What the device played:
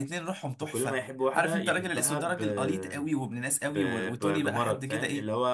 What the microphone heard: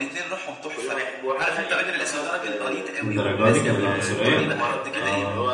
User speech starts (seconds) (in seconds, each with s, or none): 3.0 s